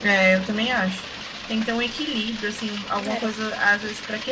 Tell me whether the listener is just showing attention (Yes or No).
Yes